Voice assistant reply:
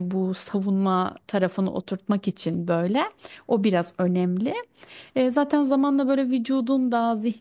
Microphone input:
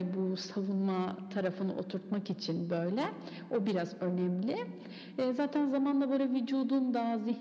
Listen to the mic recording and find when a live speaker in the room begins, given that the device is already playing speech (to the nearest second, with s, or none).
none